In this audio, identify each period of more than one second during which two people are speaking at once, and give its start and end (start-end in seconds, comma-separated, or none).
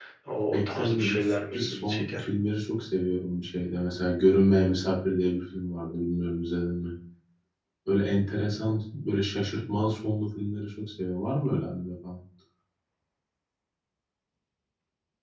0.5-2.2